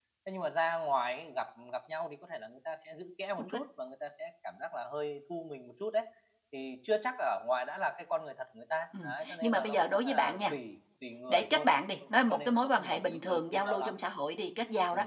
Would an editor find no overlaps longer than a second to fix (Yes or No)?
No